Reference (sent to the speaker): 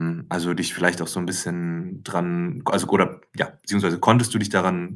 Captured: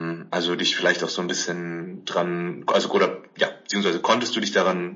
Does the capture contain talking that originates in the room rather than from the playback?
No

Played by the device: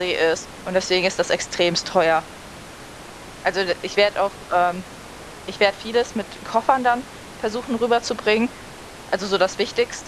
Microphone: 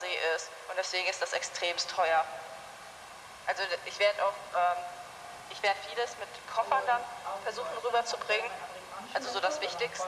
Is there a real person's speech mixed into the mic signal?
Yes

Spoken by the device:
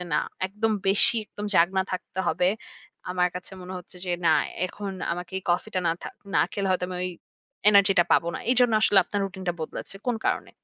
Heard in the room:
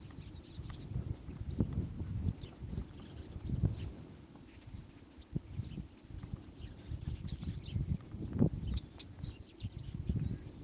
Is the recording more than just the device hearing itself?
No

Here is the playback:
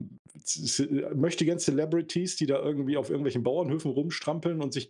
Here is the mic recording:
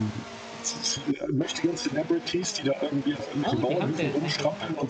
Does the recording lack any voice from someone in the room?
No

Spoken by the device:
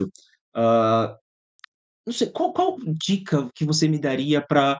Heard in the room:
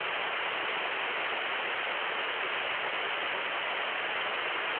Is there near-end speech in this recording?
No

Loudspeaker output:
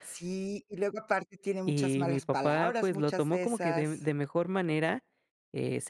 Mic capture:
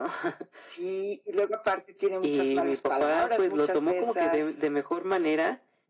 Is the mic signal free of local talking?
Yes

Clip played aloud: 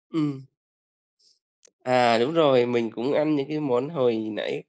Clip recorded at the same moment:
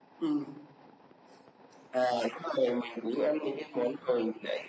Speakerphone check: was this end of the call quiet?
Yes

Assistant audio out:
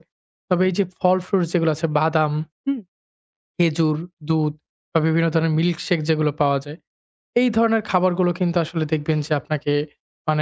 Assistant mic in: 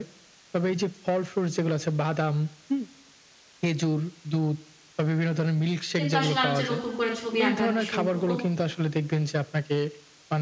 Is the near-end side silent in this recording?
No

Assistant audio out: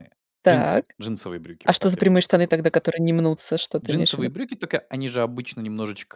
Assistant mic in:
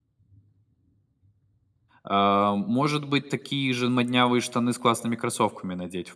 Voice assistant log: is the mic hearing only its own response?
No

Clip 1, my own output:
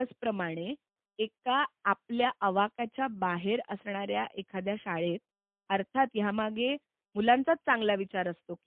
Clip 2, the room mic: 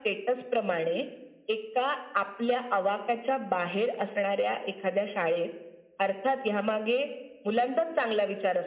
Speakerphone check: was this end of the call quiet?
Yes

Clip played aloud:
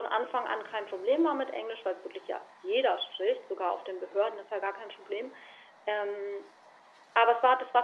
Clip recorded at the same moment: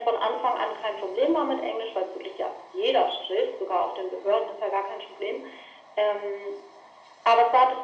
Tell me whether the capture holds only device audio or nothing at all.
Yes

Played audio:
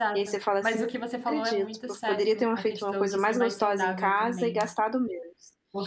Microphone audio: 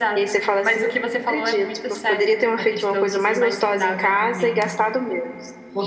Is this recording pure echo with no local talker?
Yes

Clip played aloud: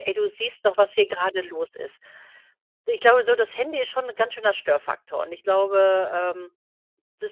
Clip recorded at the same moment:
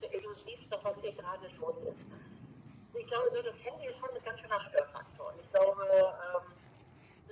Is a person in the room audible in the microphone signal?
No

